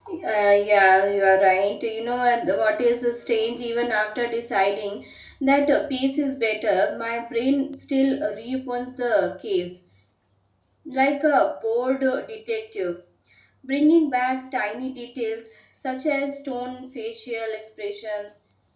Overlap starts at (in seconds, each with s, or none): none